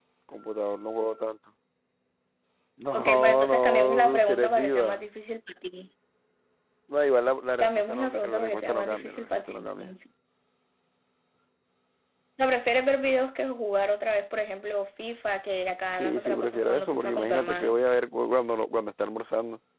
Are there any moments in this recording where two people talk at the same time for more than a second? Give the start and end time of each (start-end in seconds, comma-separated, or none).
2.9-5.1, 7.6-9.9, 16.0-17.8